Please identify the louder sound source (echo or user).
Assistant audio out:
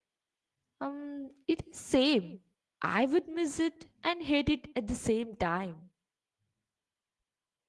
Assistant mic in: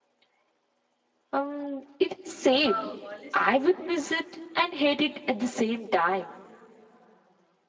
echo